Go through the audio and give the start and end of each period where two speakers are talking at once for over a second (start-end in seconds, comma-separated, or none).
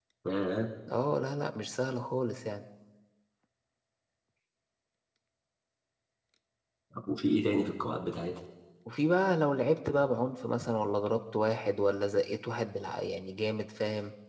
none